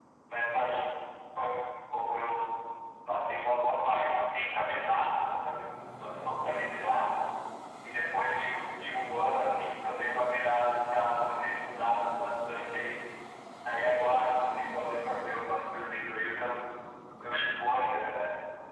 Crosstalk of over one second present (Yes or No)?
No